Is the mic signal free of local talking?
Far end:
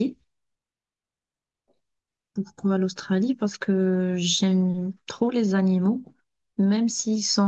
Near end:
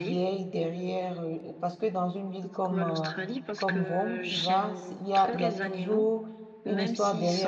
No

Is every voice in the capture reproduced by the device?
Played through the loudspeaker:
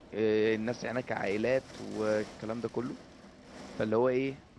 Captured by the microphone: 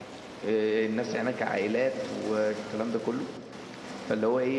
Yes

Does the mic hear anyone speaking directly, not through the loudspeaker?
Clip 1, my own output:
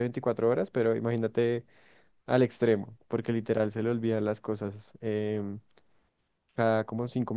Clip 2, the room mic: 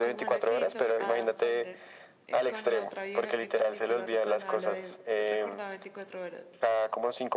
Yes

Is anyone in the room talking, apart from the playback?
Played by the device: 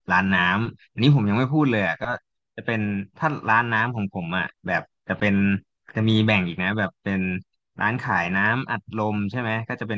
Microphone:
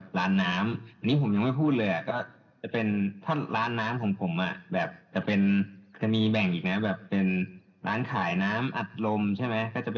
No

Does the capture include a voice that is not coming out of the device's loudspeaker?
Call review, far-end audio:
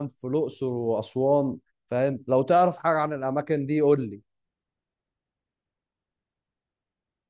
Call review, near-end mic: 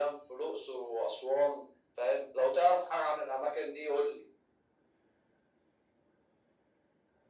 No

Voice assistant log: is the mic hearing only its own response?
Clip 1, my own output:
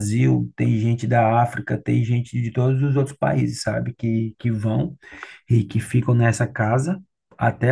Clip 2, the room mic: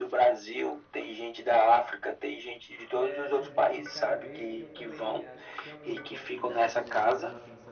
No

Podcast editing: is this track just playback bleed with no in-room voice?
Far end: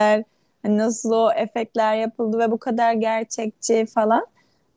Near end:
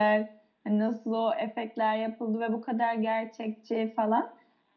Yes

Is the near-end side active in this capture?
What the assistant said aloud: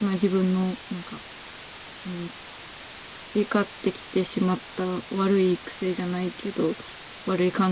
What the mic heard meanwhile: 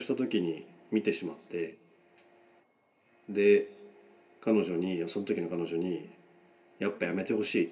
Yes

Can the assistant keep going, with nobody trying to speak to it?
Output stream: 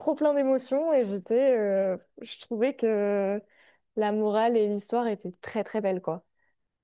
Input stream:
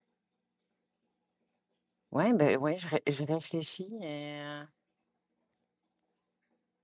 No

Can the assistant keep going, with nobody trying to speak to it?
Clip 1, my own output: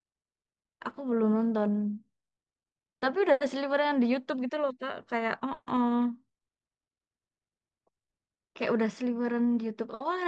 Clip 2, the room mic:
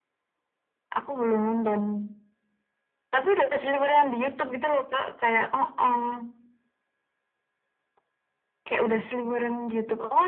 Yes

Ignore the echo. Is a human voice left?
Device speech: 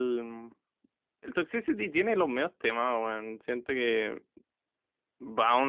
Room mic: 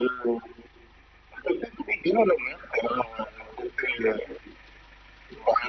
No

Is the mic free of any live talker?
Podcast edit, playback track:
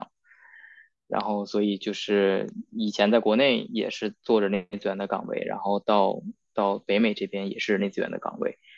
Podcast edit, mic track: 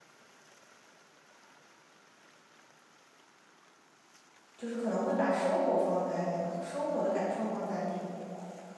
No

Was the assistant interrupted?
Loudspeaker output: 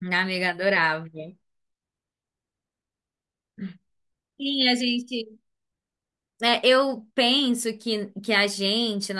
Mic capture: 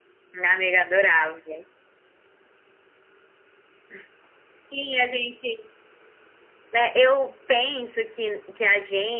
No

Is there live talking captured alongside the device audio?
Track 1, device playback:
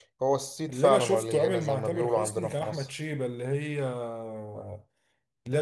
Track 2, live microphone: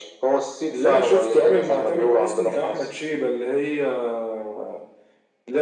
No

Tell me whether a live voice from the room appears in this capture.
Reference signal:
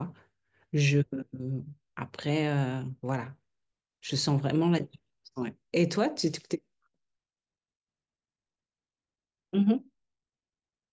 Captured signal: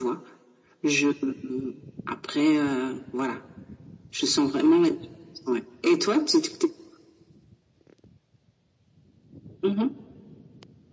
No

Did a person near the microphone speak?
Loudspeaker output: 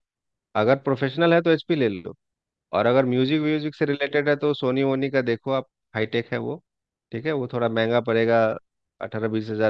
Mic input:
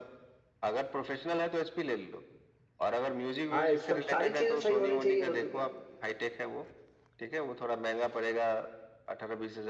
Yes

